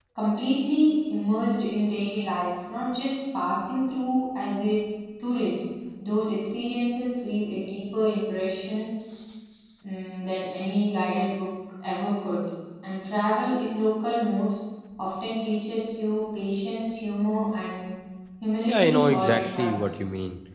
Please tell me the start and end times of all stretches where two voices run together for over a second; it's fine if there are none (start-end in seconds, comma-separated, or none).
18.7-20.0